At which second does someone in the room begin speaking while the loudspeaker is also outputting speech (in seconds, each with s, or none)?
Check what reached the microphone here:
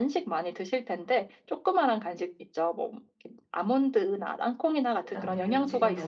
5.0 s